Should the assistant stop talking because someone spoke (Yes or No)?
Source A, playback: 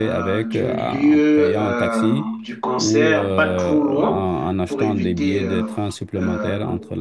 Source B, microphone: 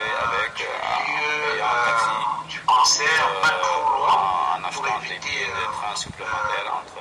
No